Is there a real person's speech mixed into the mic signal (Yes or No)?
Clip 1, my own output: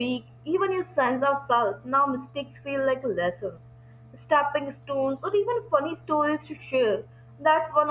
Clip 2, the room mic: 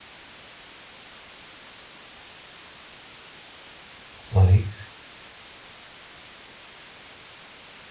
Yes